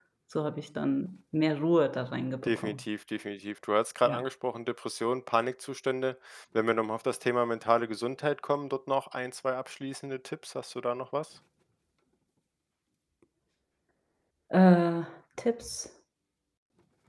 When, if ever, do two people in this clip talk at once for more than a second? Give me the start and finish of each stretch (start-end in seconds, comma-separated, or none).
none